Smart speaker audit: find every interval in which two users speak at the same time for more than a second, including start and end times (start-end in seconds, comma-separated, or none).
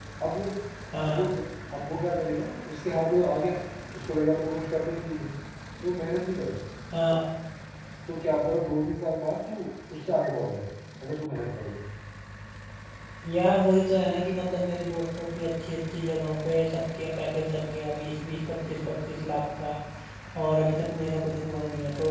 none